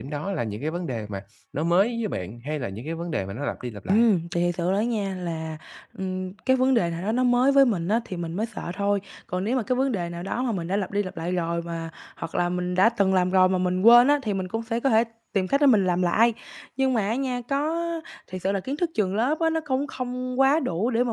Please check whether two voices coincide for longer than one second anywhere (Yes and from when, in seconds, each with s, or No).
No